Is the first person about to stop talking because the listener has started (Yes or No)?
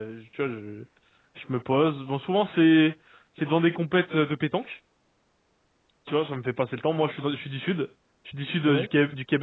No